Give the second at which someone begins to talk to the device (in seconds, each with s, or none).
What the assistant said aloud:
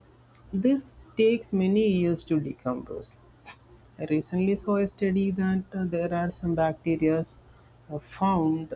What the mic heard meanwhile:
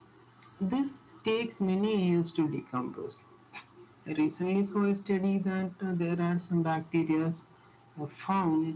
none